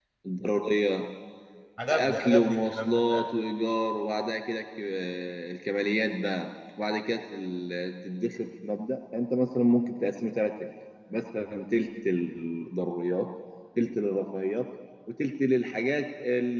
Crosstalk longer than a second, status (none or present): present